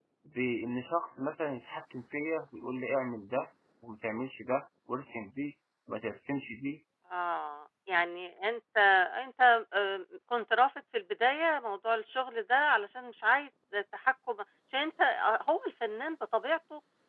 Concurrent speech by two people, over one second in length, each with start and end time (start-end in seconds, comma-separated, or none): none